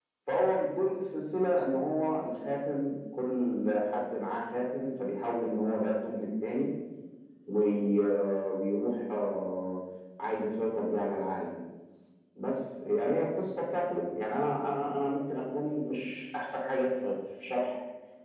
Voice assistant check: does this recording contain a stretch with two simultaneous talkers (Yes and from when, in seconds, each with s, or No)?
No